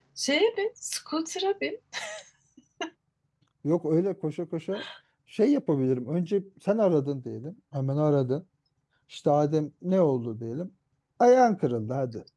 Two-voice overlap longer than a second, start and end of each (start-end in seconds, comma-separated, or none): none